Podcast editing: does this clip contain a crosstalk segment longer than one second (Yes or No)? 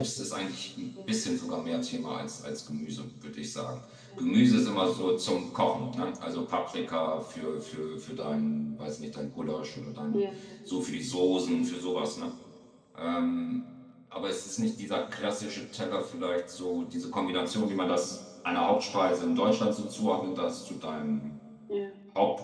No